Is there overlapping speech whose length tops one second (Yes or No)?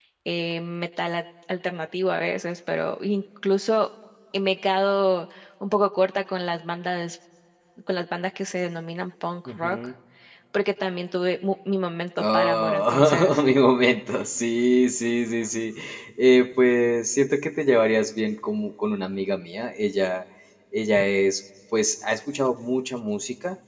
Yes